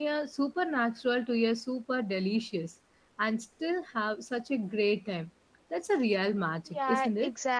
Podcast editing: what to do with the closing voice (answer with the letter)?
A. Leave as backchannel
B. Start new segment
B